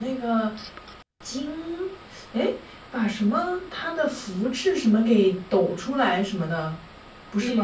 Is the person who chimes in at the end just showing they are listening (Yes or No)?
No